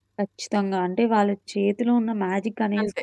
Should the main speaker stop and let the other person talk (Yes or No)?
No